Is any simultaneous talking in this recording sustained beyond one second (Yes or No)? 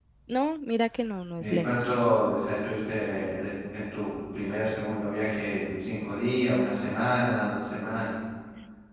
No